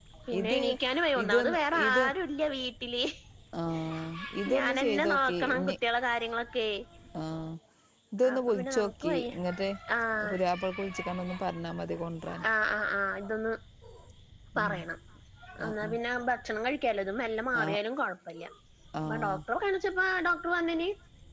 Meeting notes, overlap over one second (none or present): present